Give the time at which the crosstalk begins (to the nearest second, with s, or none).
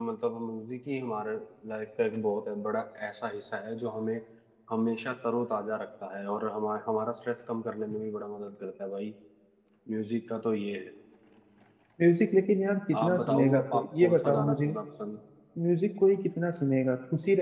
13 s